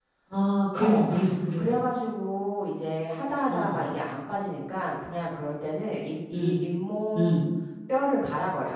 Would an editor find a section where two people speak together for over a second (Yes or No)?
No